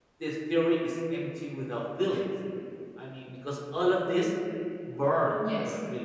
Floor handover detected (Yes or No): No